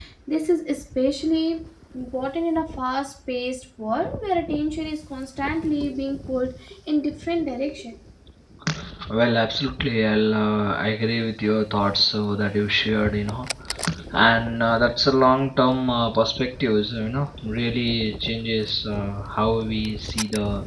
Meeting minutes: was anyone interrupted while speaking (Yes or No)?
No